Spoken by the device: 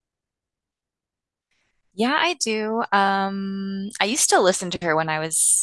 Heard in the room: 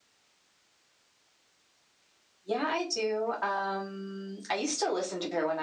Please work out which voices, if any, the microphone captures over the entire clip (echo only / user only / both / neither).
echo only